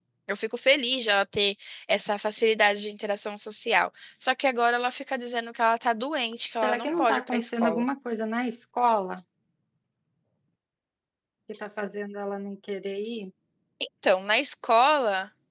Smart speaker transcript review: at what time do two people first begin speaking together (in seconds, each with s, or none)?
6.6 s